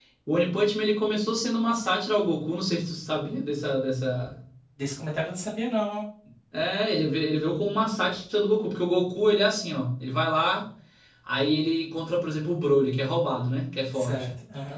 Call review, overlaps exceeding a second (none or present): none